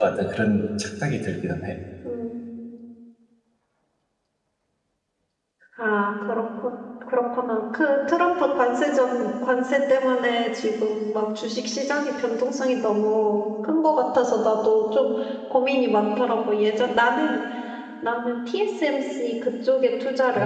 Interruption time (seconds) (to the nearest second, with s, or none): none